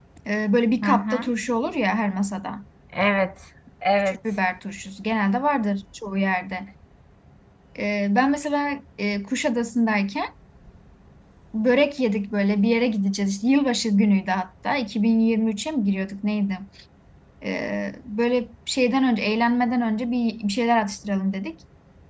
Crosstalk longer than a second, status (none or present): none